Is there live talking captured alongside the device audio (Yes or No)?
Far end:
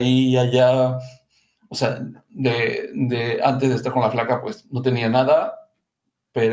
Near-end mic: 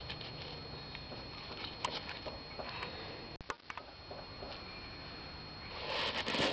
No